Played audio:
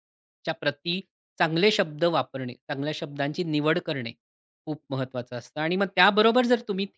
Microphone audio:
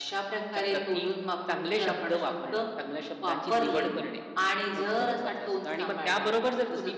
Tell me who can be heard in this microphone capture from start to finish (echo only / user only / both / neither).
both